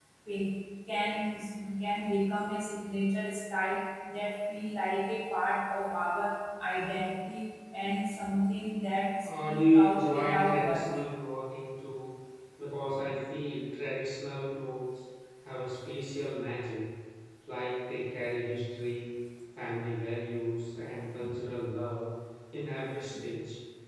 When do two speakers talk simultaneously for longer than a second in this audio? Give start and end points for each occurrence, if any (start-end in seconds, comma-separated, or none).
9.2-10.9